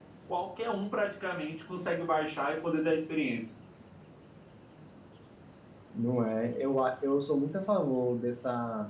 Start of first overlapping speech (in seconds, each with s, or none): none